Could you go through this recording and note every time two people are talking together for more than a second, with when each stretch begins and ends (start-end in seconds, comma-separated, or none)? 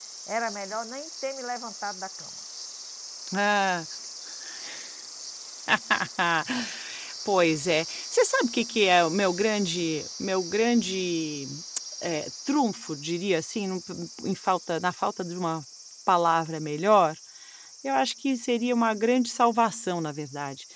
none